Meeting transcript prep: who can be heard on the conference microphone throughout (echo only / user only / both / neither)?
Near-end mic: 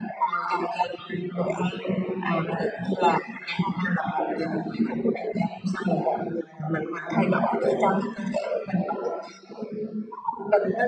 echo only